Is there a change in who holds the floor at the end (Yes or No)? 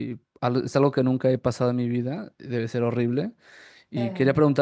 No